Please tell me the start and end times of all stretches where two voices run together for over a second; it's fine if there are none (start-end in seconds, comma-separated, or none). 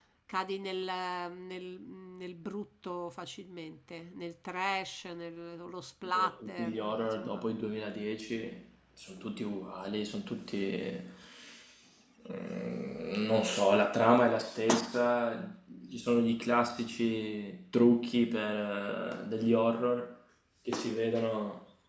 6.0-7.4